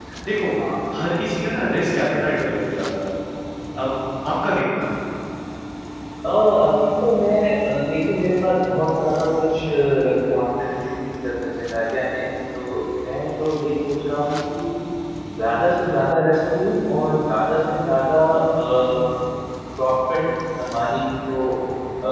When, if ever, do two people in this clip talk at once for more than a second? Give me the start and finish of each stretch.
none

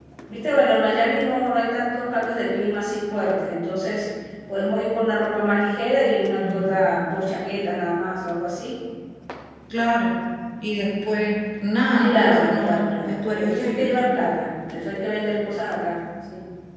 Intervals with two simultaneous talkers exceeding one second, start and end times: 12.0-14.2

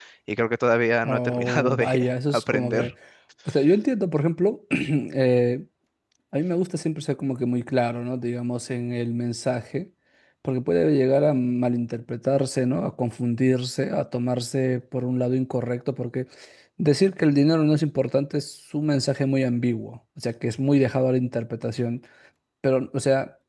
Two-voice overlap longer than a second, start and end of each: 1.0-2.9

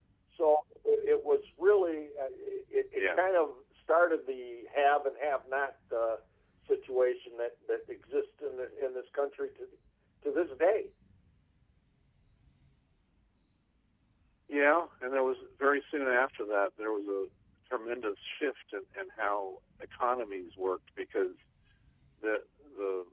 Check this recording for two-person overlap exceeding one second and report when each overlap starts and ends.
none

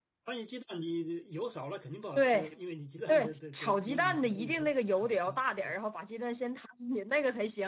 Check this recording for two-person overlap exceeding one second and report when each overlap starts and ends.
3.1-5.8

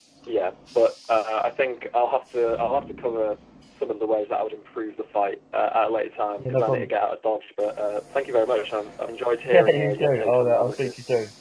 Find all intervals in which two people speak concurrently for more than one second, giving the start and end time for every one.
9.5-10.9

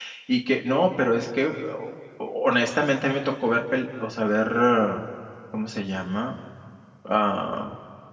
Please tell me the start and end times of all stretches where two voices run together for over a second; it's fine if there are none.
none

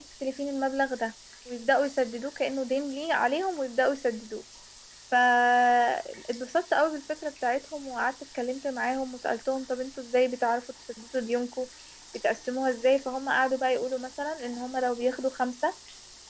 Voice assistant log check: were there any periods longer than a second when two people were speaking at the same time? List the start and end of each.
none

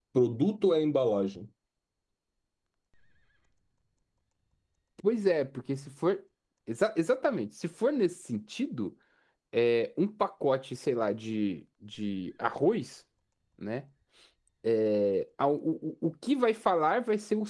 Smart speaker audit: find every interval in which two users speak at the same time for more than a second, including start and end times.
none

